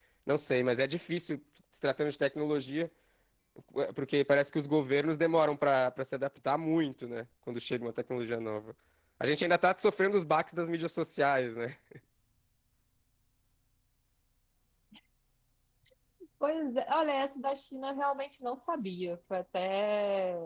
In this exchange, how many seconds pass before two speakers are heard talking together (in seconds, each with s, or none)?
none